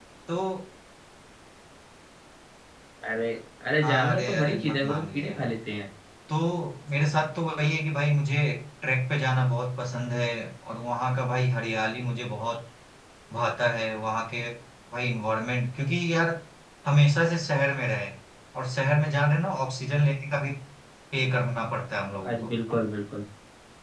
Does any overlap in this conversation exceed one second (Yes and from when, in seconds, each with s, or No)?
Yes, from 3.8 s